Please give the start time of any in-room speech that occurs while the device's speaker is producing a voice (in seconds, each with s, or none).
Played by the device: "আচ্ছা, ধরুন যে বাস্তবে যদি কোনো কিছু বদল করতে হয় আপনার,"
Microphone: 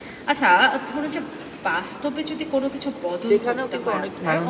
3.3 s